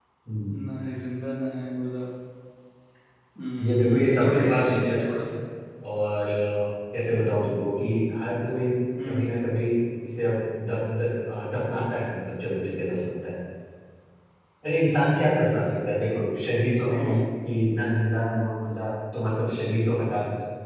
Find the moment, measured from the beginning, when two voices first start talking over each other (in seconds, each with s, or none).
3.6 s